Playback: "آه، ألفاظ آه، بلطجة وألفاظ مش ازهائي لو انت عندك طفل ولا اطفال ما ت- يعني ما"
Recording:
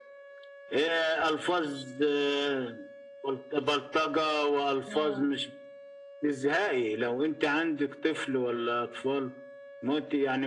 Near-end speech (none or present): present